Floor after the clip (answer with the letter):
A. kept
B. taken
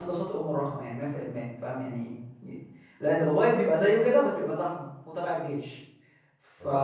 A